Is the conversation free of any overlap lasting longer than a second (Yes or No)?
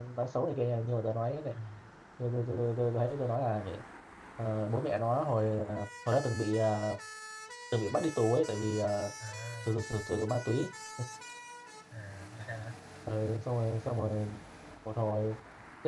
Yes